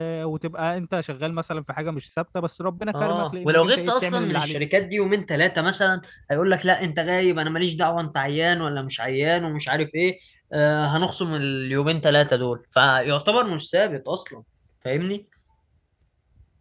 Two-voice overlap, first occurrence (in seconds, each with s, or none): 2.9 s